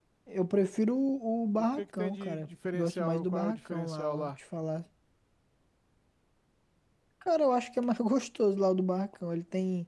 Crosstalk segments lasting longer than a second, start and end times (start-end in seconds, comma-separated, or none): 1.6-4.3